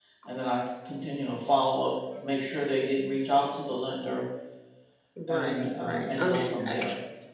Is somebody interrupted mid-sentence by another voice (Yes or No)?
Yes